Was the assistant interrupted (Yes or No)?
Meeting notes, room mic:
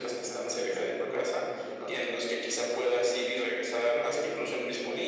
No